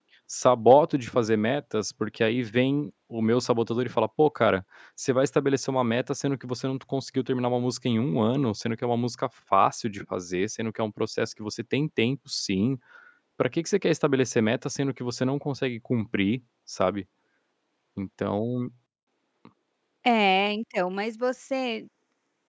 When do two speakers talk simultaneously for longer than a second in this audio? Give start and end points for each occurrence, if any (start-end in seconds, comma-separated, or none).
none